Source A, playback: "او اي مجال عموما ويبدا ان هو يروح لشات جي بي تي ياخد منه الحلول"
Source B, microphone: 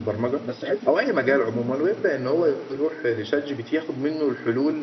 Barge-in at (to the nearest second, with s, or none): 0 s